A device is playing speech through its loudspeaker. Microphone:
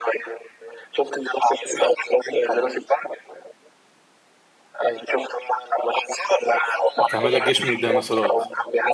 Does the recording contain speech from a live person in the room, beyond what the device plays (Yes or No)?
Yes